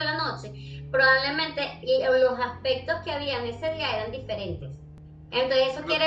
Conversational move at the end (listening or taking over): listening